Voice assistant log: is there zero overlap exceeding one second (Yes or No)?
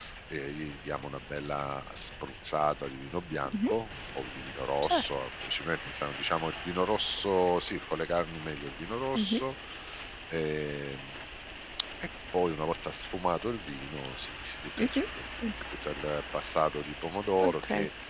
Yes